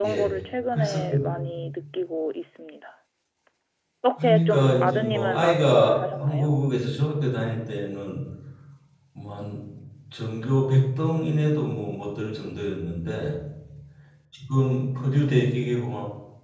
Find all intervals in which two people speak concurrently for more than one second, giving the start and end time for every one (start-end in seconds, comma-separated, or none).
4.2-6.6